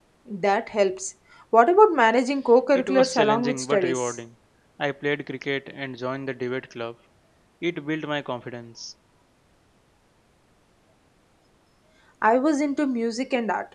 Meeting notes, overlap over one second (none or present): present